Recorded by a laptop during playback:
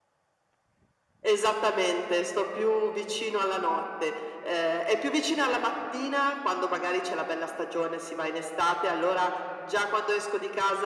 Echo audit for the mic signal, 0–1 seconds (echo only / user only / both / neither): neither